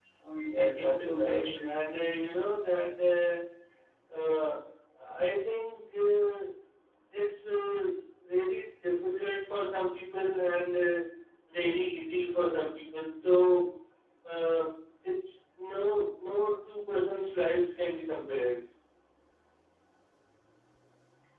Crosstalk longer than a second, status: present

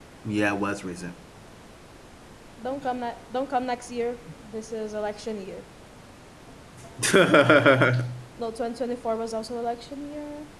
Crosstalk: none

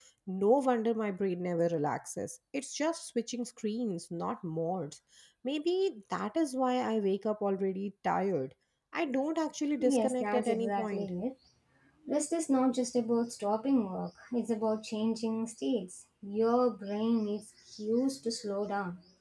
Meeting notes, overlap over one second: present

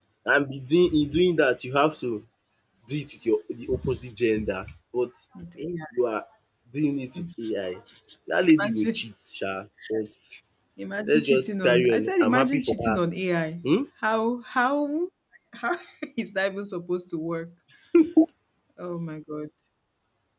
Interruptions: present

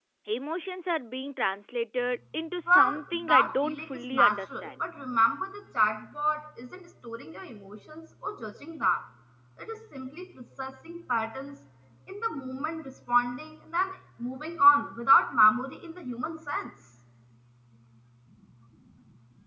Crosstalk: present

